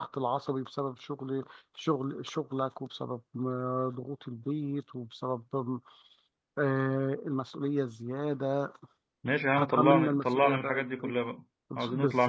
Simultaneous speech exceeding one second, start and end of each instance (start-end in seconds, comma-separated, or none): 9.6-11.1